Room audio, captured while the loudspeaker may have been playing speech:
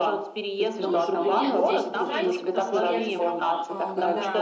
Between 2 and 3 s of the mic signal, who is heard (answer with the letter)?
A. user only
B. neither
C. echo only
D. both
D